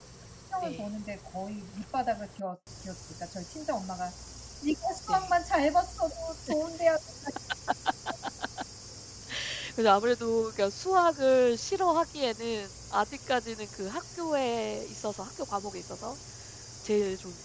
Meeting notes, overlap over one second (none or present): none